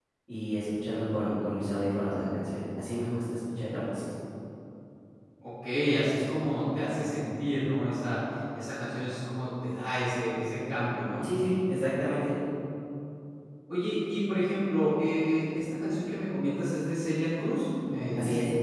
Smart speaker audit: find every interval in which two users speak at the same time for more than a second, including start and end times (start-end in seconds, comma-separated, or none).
none